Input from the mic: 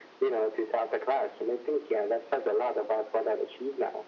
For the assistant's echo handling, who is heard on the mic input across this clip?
echo only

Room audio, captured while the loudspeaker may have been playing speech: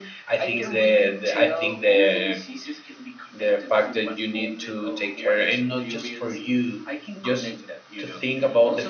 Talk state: both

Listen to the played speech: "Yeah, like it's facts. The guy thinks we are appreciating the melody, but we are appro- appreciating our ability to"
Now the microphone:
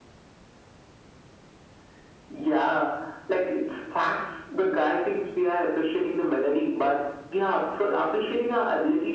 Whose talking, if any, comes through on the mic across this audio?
echo only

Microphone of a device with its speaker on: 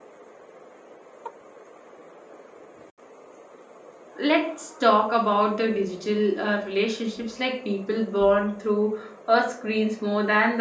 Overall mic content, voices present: user only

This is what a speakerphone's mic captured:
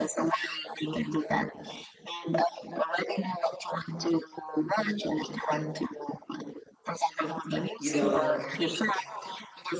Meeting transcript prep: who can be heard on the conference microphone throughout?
both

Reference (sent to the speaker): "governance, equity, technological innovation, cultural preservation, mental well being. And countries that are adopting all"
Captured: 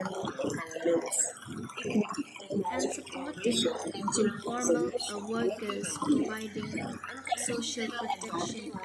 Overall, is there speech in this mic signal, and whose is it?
both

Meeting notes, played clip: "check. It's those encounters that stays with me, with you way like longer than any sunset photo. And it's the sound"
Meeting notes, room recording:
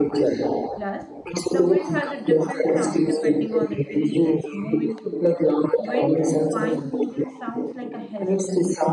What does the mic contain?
both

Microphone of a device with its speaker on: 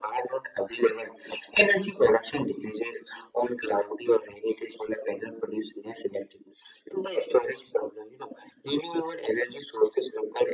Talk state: echo only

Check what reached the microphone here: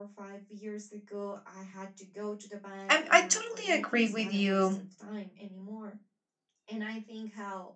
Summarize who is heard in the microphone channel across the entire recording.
both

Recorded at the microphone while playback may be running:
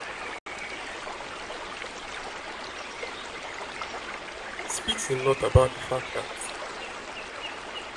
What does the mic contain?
user only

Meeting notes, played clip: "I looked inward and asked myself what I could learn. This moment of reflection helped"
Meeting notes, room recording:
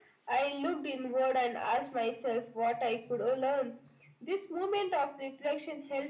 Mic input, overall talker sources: echo only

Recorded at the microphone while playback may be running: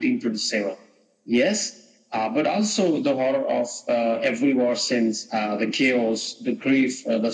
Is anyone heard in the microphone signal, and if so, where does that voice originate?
echo only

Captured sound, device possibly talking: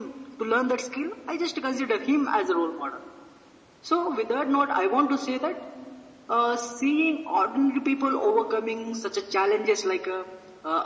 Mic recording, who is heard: echo only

